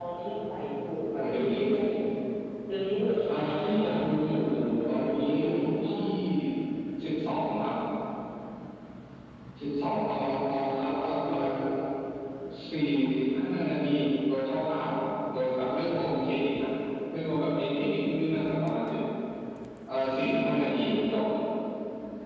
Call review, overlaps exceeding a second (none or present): present